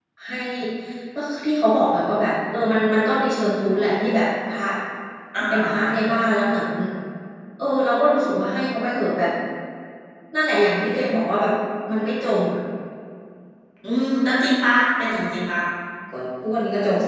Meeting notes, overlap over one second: none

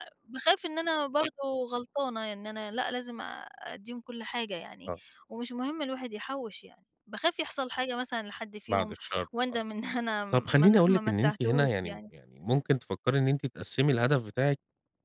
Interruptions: present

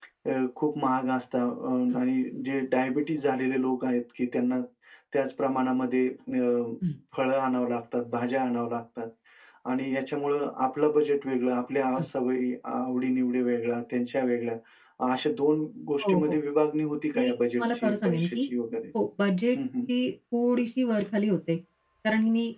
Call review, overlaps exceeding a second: present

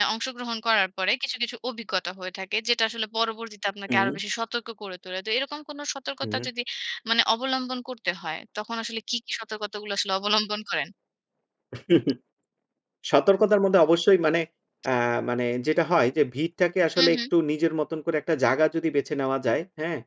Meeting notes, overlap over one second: none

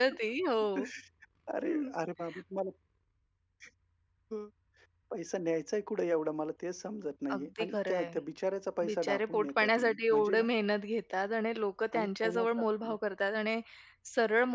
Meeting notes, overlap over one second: present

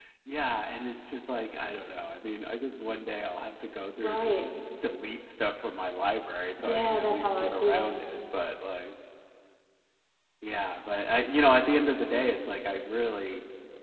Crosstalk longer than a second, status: present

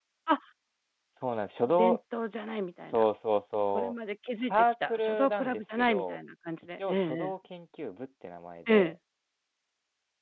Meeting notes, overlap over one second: present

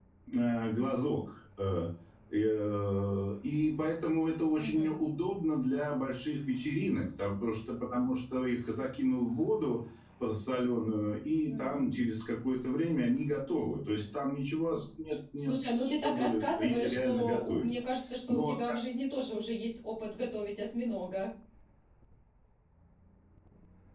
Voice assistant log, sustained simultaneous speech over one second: present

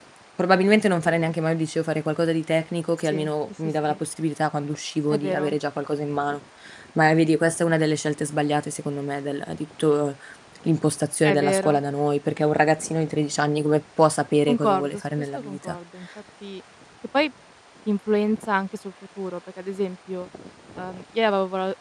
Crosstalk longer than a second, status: present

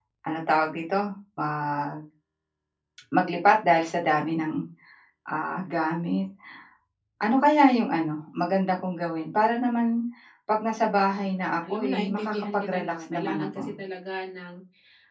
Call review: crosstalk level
present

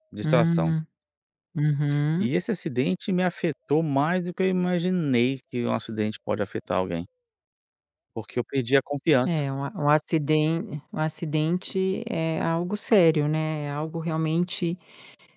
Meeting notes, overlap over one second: none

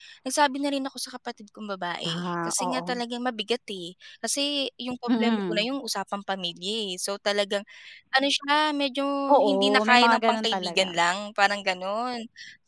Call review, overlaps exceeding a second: present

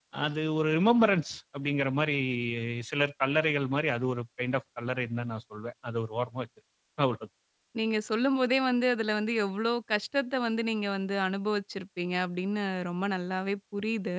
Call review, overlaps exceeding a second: none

